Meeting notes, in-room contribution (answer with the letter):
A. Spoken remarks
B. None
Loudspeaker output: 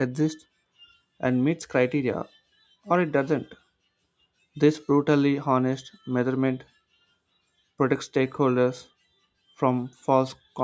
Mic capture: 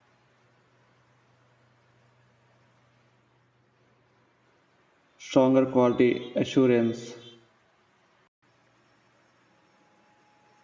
A